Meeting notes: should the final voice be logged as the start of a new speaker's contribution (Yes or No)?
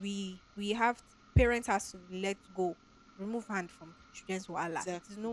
No